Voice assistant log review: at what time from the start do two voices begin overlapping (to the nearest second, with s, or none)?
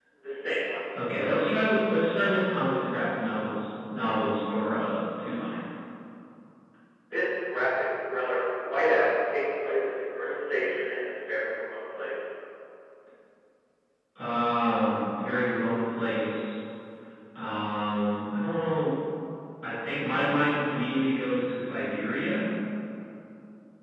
none